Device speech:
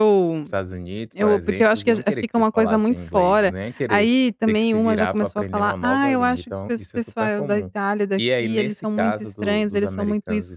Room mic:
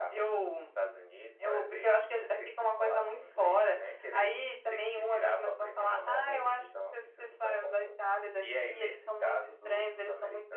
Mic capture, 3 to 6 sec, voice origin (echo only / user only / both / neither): echo only